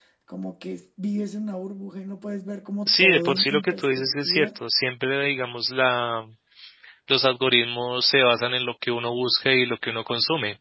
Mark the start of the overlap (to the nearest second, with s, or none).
3 s